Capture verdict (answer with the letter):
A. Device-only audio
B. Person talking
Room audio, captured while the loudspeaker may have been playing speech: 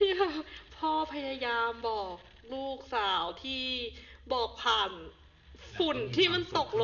B